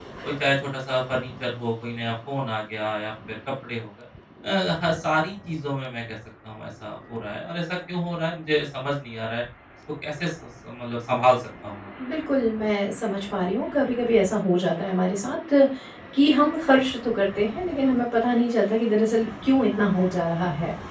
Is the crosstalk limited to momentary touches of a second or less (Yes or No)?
Yes